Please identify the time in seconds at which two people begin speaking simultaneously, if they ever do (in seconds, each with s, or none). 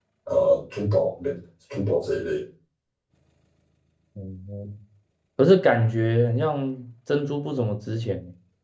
none